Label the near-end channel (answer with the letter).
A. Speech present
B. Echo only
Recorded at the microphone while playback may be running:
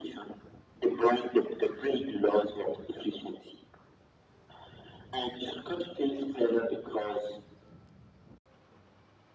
B